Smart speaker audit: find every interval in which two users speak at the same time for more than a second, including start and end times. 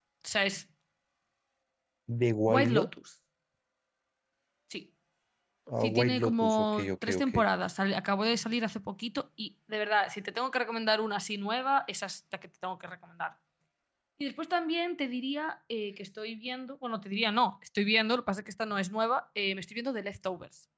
5.8-7.3

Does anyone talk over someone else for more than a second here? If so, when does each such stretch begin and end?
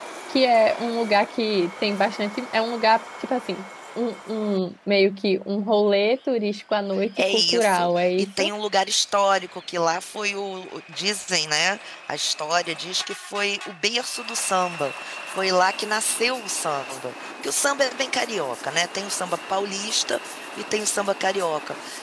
7.2-8.4

